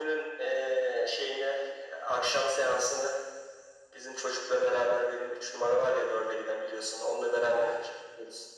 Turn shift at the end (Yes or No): No